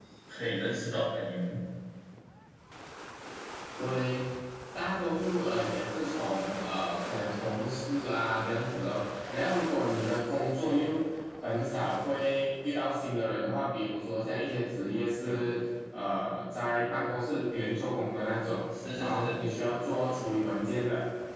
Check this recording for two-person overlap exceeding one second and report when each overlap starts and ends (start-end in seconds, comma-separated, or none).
none